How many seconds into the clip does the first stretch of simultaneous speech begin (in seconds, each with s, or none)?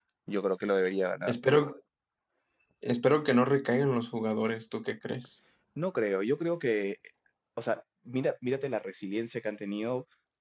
none